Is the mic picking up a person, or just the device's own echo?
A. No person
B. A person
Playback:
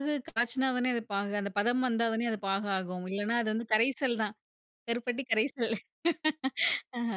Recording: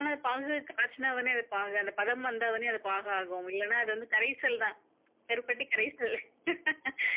A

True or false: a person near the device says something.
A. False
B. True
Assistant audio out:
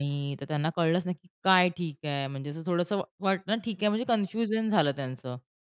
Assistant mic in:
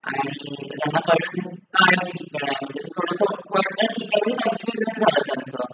A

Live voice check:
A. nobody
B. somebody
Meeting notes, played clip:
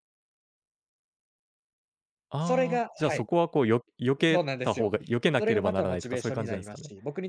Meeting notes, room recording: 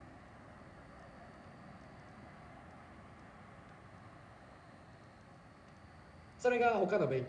B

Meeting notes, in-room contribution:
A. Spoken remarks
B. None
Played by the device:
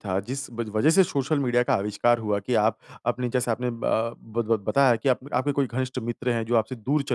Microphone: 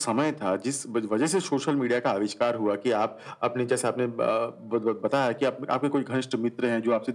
B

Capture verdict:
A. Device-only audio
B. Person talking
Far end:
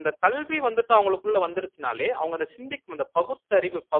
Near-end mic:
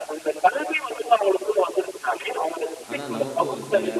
B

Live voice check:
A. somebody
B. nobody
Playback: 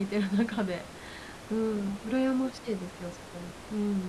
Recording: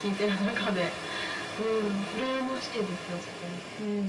B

